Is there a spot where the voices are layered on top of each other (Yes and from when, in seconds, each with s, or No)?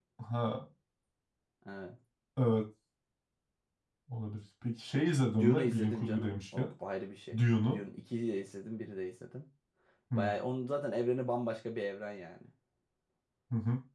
Yes, from 5.4 s